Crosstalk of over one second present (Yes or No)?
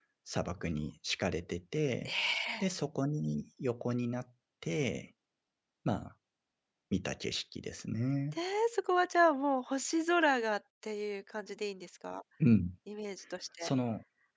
No